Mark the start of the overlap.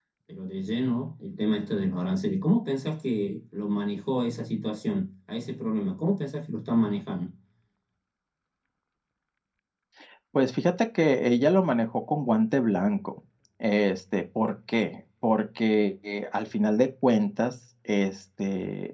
none

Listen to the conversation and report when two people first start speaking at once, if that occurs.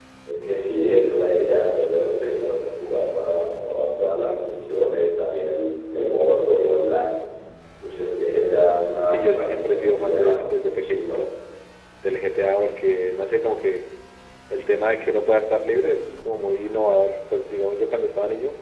9.0 s

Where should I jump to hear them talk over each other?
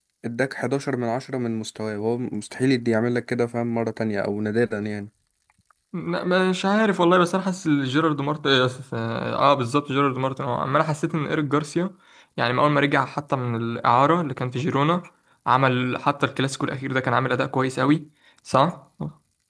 none

